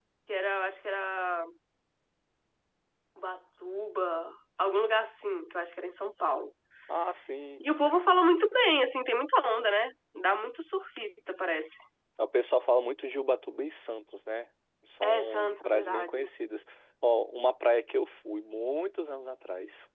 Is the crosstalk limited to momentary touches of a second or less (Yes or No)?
No